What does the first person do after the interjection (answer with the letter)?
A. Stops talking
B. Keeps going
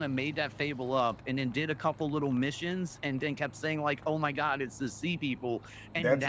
A